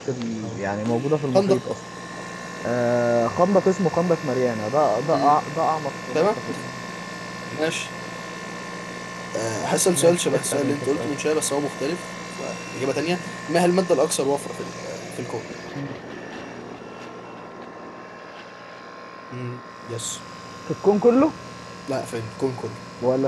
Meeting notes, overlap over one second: present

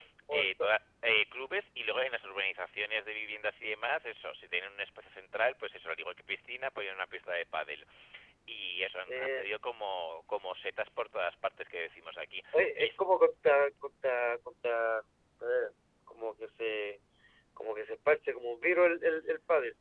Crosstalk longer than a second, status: none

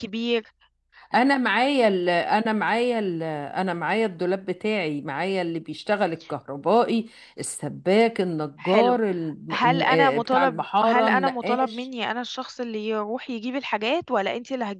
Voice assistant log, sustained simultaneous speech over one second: present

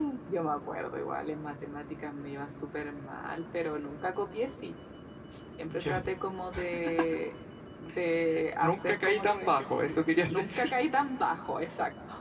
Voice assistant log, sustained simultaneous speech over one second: present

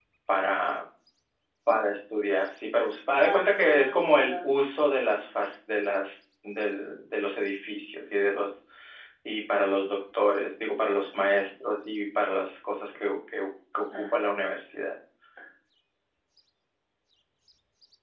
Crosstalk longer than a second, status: present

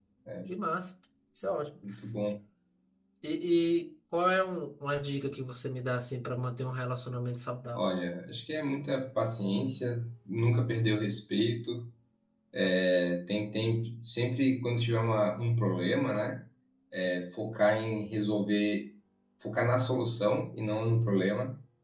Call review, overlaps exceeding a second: none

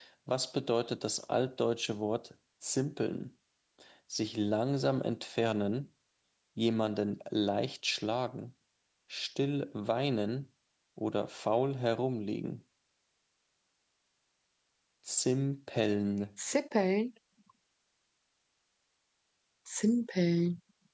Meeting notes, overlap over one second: none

